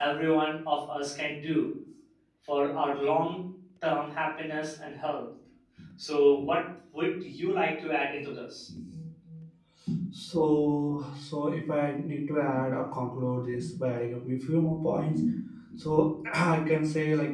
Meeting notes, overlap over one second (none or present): none